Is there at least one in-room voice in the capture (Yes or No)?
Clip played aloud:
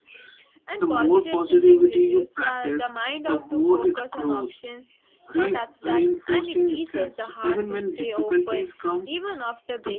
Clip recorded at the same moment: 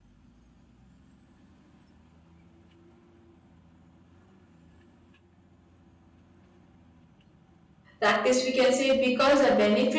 Yes